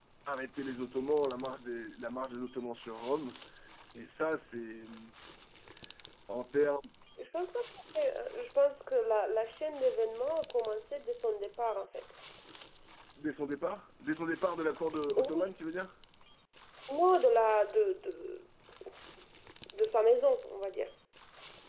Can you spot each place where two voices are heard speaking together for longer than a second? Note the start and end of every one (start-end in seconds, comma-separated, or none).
none